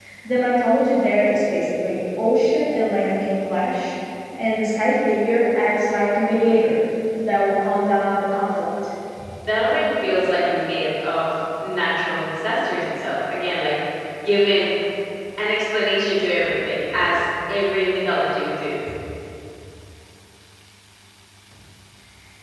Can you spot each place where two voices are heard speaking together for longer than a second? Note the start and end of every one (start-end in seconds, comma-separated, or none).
none